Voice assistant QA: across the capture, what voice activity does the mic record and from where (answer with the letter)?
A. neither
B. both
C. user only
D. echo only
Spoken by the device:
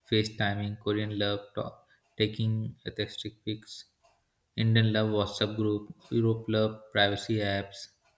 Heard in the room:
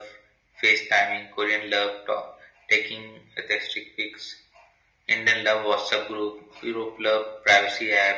D